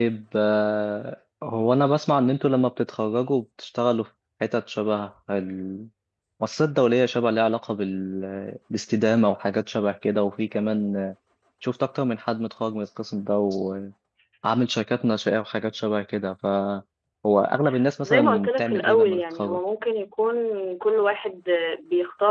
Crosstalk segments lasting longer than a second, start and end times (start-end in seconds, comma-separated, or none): 18.0-19.6